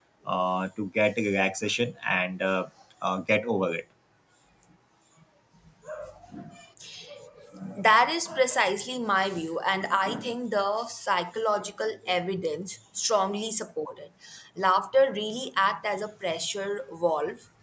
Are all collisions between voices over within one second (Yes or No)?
Yes